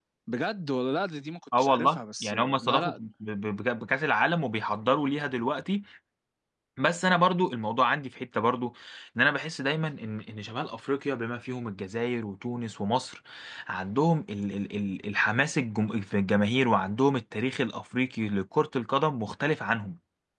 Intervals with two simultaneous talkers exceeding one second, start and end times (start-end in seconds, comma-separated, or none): 1.6-3.0